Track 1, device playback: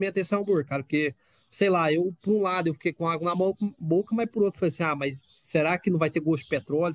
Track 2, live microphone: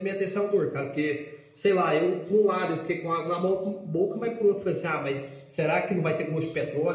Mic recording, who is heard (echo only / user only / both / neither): echo only